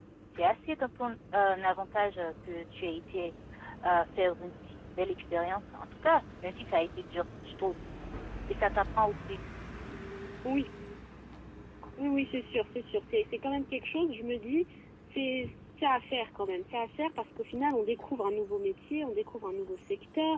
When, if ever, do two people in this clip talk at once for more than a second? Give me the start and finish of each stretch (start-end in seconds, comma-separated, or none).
none